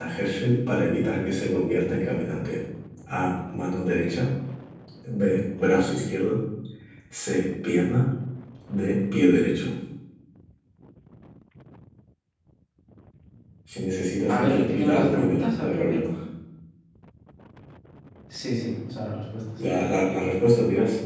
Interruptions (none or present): present